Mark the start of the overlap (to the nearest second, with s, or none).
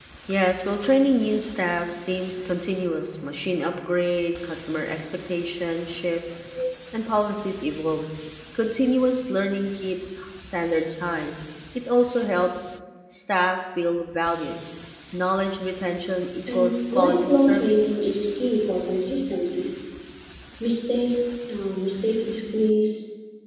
16 s